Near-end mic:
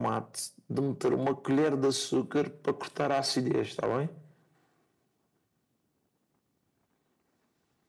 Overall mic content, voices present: echo only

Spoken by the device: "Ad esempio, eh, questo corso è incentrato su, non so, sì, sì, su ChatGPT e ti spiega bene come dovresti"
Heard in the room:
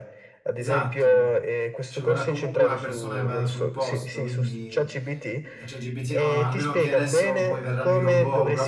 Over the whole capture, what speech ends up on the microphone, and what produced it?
both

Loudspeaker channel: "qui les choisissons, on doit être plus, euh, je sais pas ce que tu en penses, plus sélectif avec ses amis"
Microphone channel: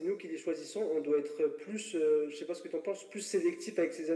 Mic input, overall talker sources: echo only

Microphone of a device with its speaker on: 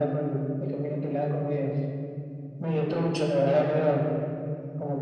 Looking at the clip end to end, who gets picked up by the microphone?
echo only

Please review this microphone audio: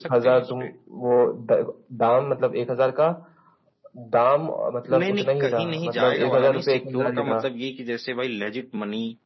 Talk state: both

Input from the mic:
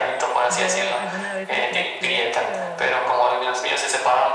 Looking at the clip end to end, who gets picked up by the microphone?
both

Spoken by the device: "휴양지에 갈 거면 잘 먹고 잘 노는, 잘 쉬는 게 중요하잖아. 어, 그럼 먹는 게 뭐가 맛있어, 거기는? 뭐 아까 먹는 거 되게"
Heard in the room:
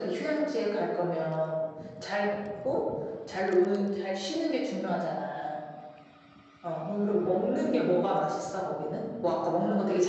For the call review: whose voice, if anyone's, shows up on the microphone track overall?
echo only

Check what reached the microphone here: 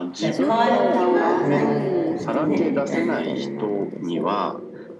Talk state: both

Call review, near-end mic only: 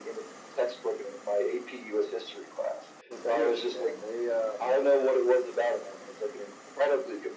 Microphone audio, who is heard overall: both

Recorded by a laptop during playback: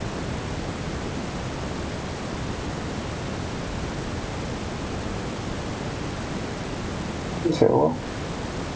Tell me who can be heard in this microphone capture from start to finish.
user only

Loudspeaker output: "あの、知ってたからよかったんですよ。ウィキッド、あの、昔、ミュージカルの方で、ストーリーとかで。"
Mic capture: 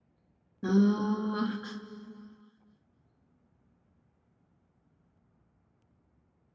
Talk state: user only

